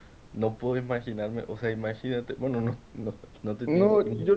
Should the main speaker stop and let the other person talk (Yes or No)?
Yes